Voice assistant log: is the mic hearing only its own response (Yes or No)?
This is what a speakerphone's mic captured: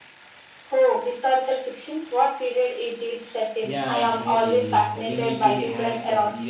No